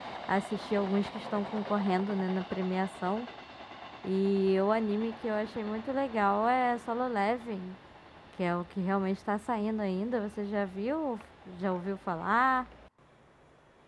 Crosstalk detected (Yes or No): No